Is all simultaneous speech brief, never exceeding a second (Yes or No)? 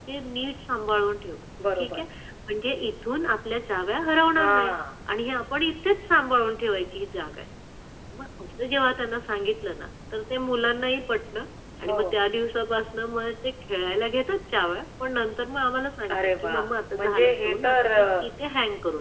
No